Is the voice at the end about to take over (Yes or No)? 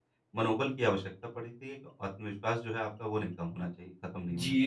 Yes